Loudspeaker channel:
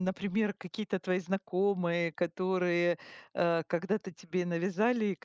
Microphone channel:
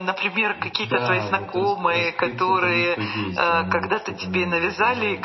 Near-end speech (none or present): present